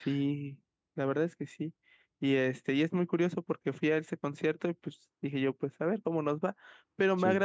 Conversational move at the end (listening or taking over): listening